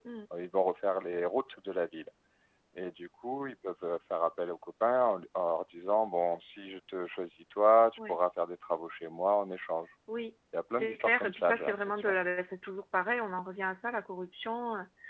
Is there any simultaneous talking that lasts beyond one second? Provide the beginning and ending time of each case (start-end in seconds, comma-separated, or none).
10.7-12.1